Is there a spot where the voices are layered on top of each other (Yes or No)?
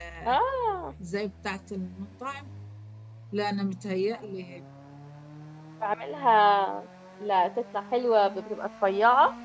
No